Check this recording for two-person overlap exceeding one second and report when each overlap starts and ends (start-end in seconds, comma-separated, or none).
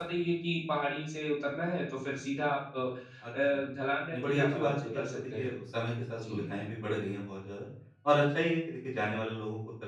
4.1-5.5